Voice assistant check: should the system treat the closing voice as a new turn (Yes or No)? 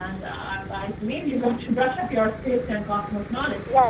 Yes